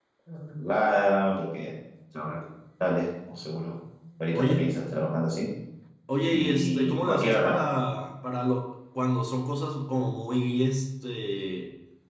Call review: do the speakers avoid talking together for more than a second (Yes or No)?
No